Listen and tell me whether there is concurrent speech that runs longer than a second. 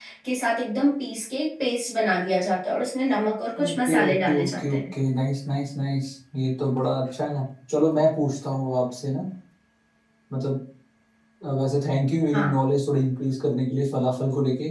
Yes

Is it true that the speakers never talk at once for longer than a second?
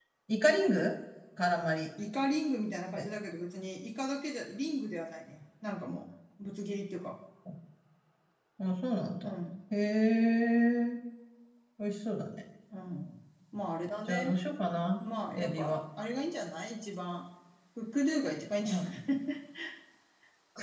Yes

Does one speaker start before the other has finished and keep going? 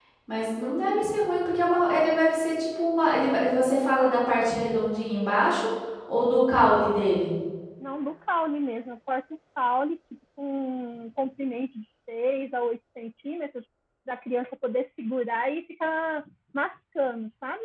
No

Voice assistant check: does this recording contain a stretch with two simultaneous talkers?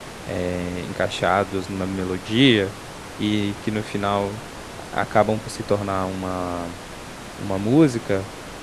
No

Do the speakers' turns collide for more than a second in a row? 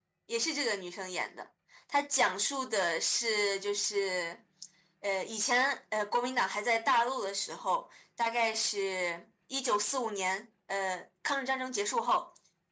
No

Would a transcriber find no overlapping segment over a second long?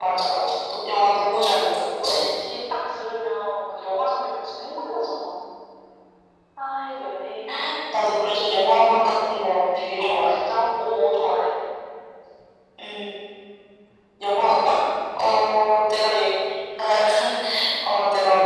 Yes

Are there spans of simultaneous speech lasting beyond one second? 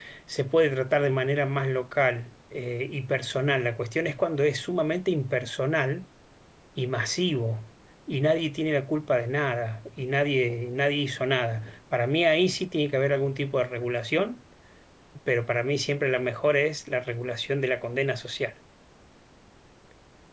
No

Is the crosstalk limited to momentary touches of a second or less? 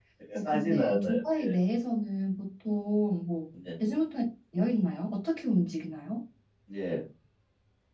No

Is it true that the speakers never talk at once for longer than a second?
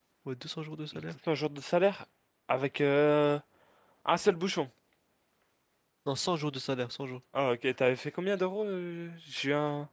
Yes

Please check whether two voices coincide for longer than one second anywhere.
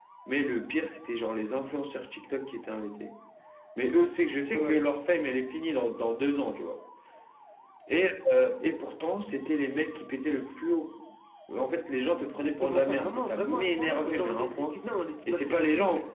Yes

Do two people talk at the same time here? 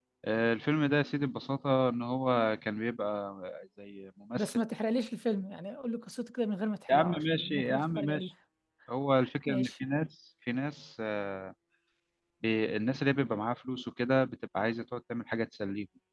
Yes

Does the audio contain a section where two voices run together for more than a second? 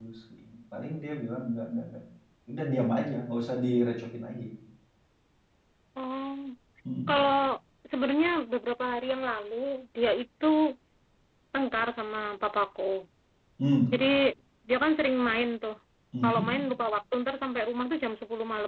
No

